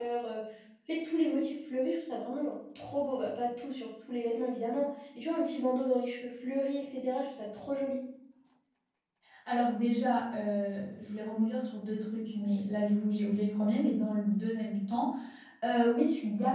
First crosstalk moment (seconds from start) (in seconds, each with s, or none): none